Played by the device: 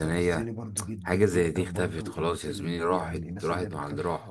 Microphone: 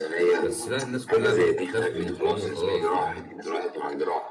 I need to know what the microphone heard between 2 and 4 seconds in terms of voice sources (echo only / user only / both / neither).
both